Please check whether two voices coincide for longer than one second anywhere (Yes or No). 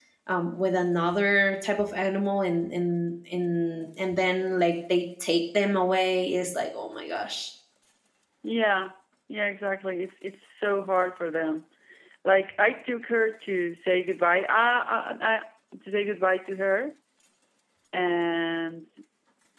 No